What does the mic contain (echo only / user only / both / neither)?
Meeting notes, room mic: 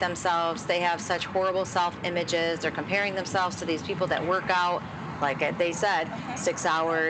both